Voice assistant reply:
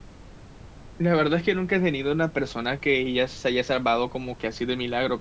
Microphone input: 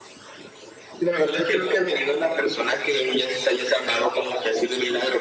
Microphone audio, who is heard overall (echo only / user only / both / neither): echo only